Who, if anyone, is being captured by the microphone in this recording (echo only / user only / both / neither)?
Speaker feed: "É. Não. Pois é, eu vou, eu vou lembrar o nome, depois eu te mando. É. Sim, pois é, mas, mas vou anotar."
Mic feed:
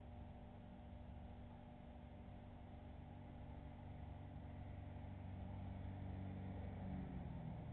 neither